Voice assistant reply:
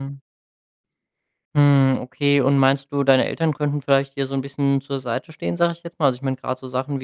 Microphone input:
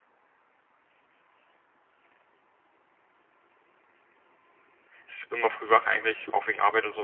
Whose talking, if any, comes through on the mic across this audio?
user only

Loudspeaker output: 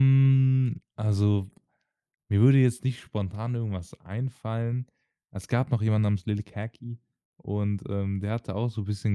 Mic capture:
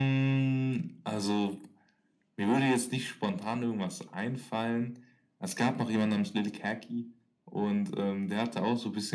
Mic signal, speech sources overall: echo only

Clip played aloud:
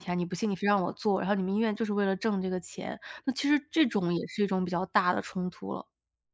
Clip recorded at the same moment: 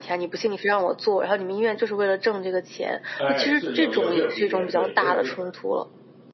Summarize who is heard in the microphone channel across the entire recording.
both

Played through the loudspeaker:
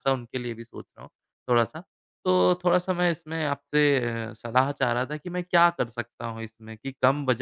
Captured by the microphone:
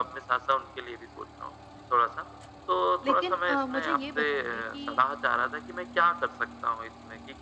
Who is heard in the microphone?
both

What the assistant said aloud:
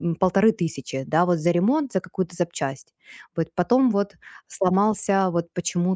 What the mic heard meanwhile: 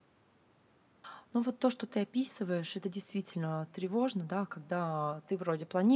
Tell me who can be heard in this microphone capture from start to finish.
user only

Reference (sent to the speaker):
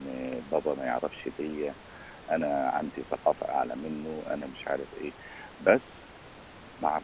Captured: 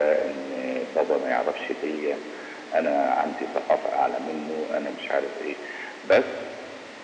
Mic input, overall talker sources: echo only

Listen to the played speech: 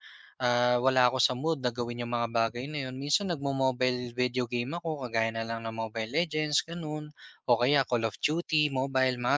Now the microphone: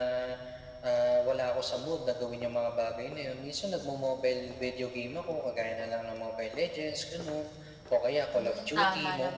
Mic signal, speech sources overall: both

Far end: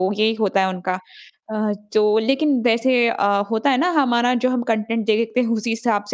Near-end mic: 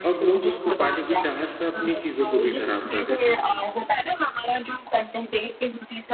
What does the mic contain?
both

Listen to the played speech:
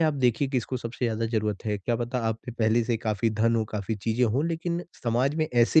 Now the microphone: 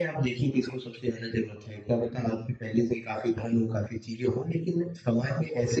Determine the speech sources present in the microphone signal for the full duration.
echo only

